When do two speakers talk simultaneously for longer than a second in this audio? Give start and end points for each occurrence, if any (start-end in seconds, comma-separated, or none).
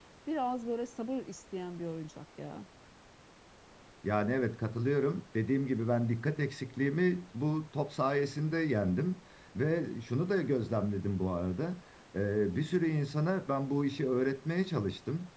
none